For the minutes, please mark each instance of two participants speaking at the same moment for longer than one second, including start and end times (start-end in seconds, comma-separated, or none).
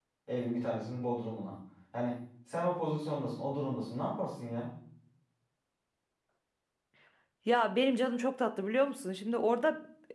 none